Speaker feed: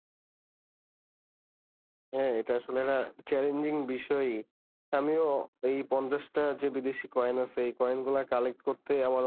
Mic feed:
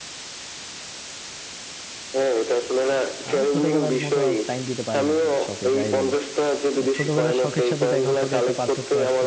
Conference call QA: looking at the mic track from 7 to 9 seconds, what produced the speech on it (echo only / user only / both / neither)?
both